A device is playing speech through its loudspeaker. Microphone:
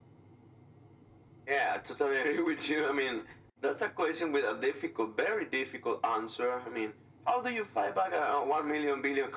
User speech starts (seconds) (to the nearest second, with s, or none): none